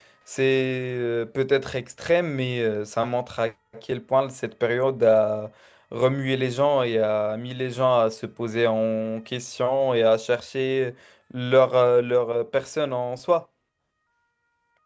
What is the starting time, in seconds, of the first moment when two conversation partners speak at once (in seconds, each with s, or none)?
none